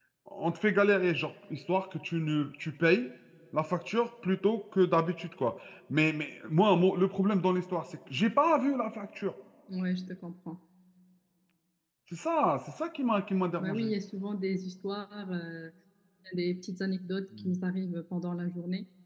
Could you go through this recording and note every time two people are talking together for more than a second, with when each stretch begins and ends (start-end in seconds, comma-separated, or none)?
none